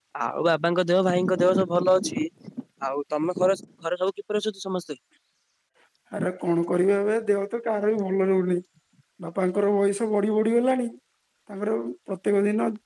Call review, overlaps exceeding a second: none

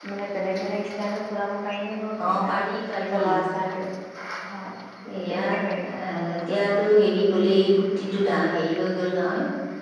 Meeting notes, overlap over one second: none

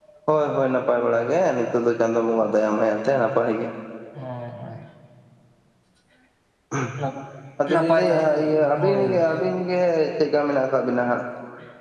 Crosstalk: present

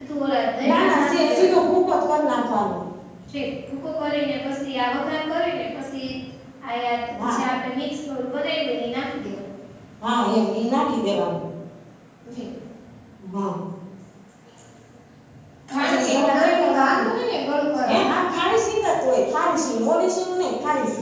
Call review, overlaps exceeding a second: present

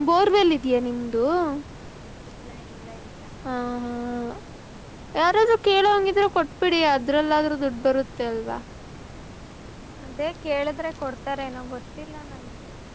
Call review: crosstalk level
none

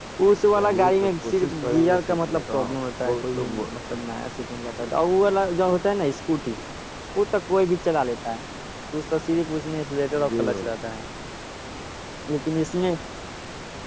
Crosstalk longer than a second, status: present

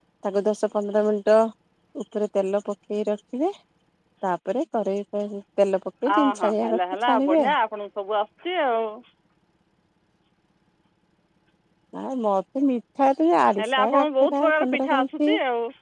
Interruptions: present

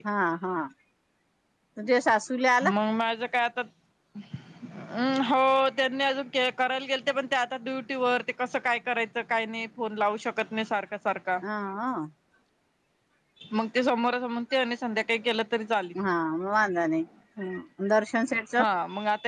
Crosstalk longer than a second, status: none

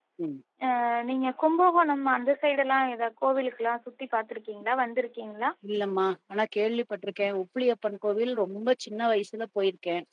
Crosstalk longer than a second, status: none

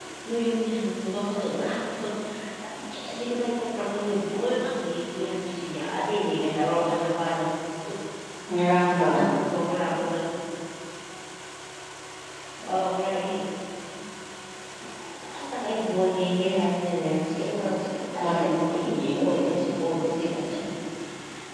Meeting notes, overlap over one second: present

